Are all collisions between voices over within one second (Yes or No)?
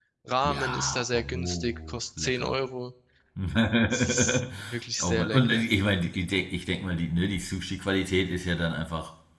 No